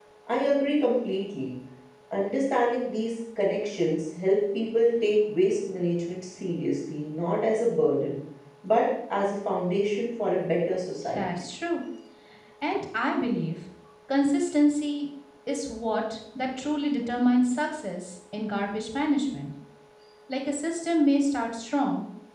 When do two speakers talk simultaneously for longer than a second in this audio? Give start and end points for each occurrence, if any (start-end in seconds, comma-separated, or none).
none